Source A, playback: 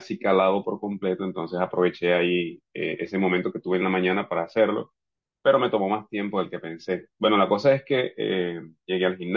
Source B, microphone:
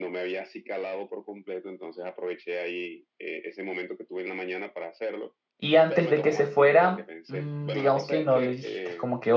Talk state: both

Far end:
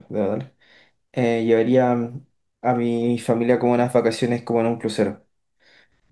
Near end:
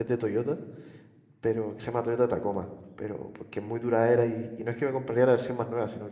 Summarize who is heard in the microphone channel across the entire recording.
user only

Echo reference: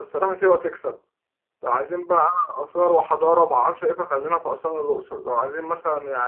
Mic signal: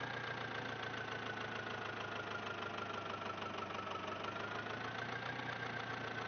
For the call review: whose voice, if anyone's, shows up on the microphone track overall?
neither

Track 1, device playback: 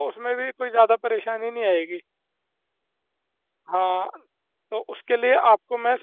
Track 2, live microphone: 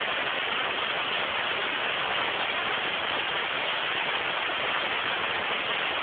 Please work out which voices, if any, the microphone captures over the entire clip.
neither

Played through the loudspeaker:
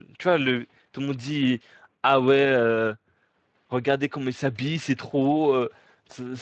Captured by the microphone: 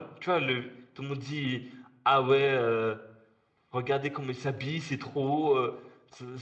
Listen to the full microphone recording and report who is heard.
echo only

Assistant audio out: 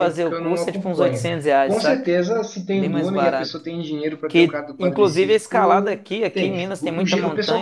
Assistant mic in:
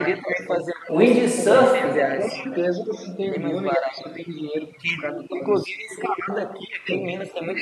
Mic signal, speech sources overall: both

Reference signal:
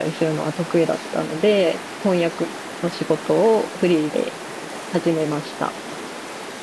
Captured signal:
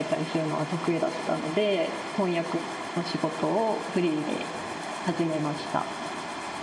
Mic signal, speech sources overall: echo only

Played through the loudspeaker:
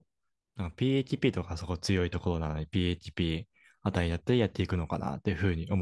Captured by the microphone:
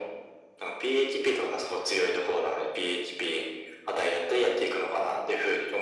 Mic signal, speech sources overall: echo only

